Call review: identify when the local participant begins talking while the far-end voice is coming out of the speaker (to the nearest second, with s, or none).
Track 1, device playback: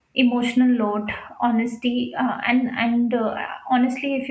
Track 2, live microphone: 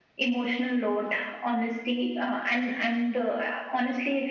none